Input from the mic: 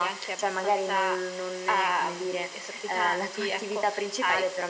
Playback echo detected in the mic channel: Yes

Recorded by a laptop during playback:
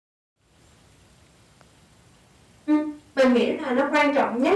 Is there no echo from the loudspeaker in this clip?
Yes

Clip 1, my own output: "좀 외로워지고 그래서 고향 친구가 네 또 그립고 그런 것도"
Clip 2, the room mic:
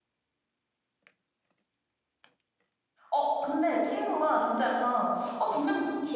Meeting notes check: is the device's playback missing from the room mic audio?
Yes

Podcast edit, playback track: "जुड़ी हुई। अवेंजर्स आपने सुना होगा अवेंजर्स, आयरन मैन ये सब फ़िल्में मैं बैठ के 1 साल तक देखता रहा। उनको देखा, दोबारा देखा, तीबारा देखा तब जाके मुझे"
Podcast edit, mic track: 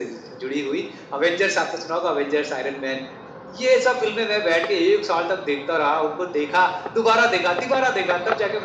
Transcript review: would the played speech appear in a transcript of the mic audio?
Yes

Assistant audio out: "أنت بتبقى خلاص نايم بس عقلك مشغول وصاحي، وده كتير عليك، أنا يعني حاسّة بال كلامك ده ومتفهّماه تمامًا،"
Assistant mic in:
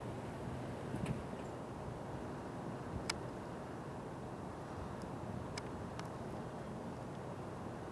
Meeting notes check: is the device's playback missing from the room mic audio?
Yes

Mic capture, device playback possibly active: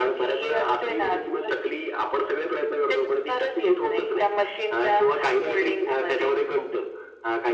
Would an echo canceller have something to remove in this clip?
Yes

